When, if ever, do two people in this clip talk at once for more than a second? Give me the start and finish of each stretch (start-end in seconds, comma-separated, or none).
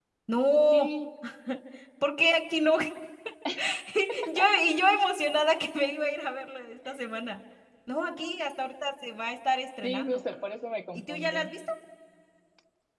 none